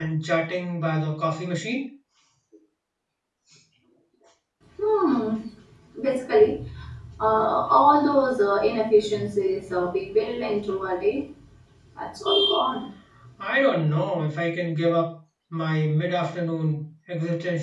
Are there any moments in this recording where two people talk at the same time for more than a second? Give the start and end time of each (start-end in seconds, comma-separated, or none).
none